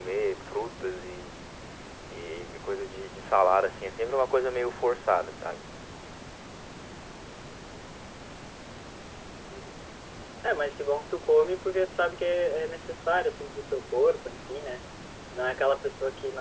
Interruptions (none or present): none